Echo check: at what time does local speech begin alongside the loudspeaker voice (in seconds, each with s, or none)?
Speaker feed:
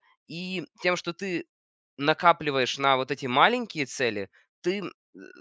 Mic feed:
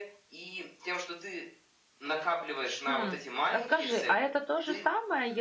2.9 s